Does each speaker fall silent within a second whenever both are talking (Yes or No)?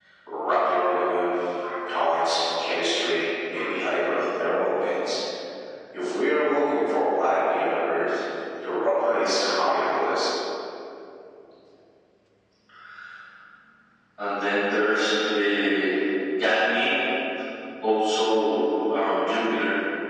Yes